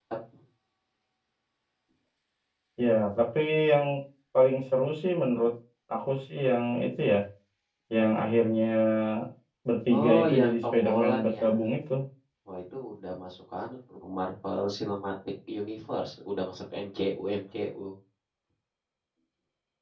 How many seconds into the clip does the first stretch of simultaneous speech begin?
9.9 s

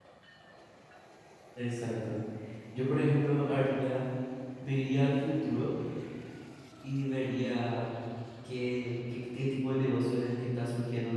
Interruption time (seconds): none

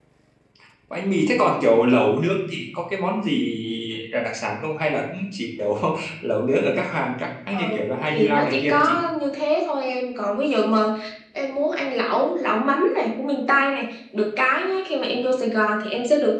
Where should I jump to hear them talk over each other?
7.5 s

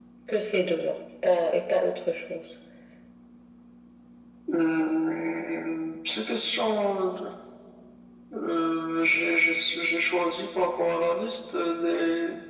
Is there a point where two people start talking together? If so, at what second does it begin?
none

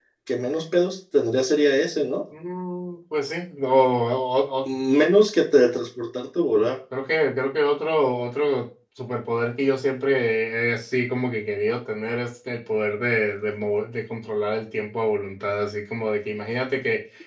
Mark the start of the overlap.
none

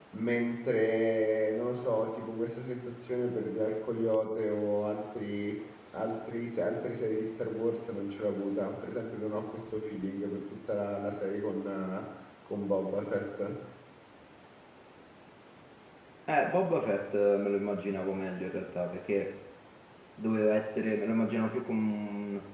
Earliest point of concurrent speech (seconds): none

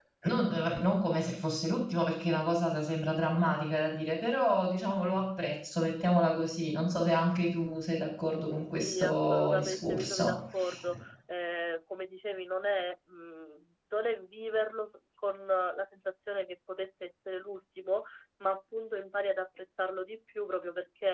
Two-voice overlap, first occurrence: 8.9 s

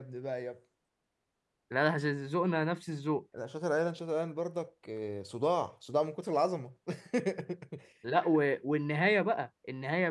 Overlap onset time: none

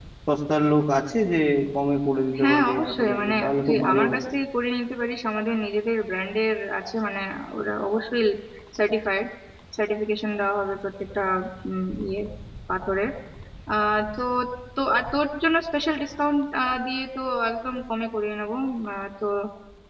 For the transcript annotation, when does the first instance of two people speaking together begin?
2.4 s

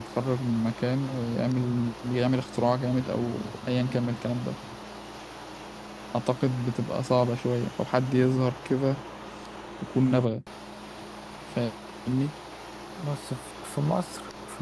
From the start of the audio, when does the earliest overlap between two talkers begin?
none

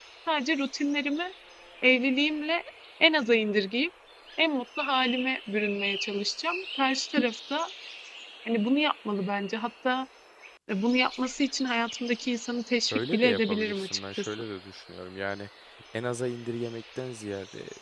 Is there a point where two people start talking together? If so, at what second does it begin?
12.9 s

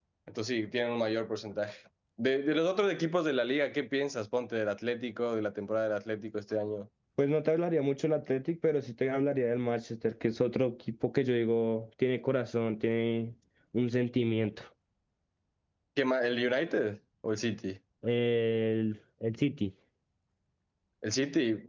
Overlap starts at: none

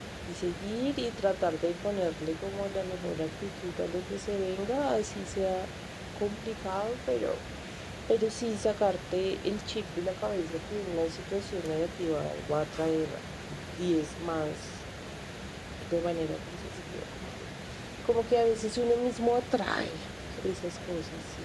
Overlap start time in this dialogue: none

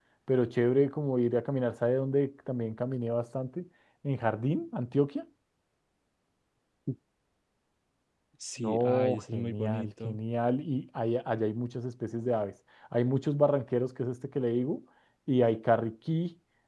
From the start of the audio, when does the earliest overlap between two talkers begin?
8.6 s

